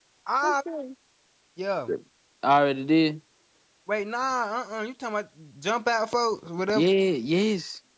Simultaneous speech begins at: none

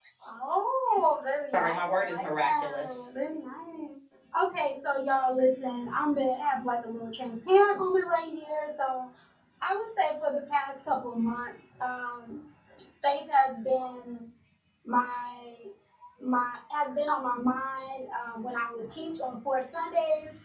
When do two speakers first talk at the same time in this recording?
1.5 s

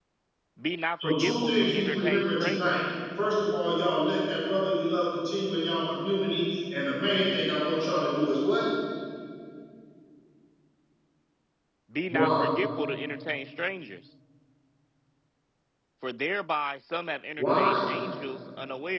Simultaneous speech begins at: 1.0 s

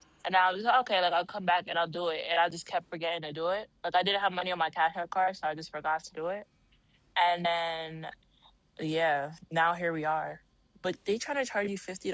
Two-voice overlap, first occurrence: none

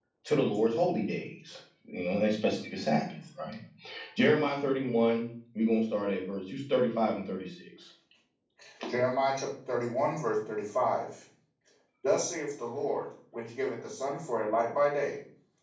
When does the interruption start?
none

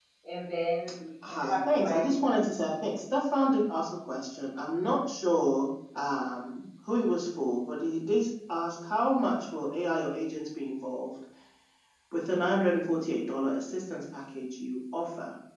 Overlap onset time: 1.3 s

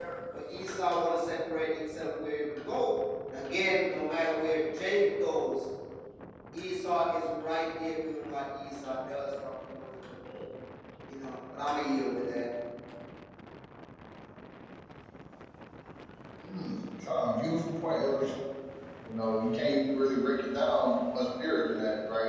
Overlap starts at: none

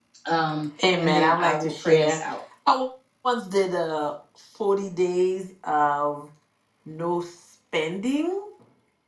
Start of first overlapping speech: 1.0 s

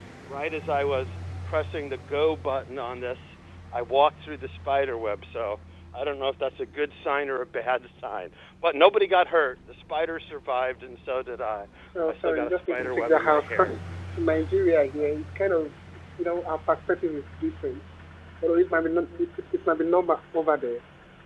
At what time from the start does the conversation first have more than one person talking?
12.1 s

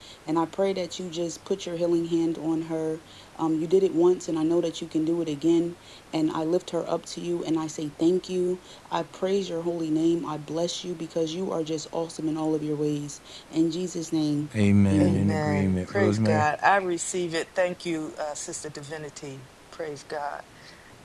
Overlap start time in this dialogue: 14.9 s

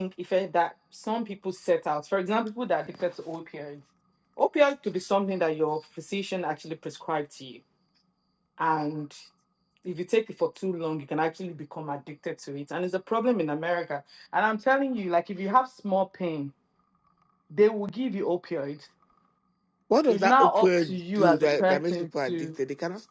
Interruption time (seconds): 20.1 s

